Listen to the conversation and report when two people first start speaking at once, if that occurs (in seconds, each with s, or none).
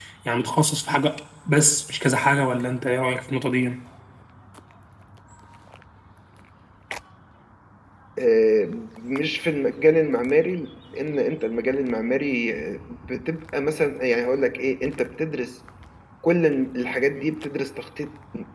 none